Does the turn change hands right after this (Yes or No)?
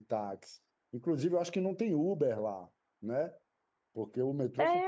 Yes